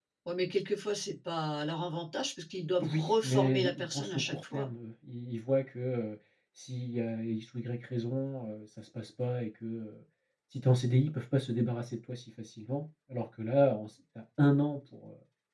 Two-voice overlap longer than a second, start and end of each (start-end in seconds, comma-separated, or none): 2.8-4.7